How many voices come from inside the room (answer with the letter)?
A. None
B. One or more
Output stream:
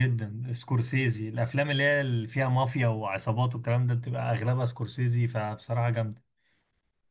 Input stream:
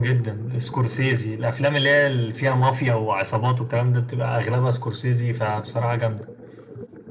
A